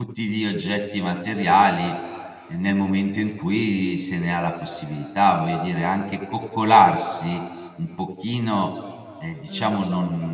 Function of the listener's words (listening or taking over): listening